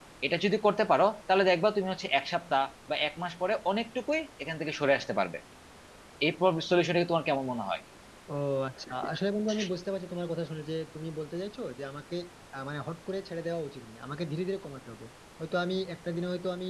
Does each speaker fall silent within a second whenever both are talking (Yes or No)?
Yes